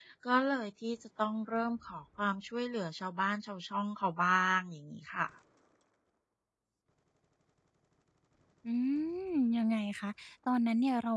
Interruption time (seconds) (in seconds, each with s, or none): none